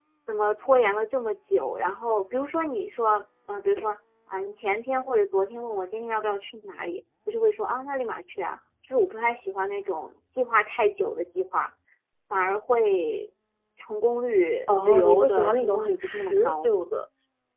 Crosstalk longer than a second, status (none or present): present